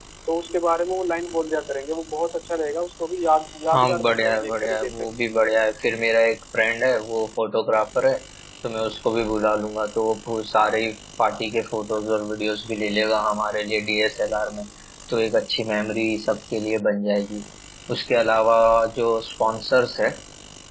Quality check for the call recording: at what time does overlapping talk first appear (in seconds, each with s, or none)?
3.7 s